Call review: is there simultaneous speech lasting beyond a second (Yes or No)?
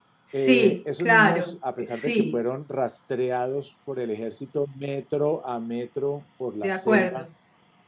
Yes